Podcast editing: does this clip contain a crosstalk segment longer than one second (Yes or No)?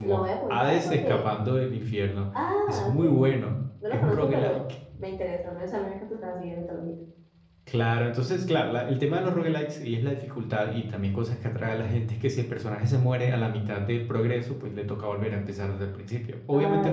Yes